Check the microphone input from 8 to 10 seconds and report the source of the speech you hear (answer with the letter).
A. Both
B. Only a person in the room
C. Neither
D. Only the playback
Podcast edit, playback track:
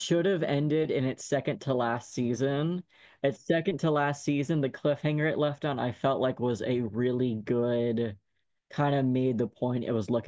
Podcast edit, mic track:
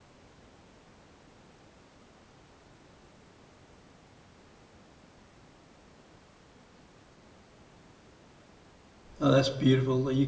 B